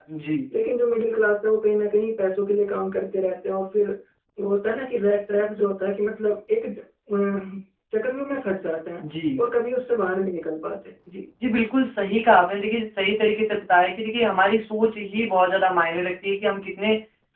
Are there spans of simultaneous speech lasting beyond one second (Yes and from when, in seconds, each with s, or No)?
No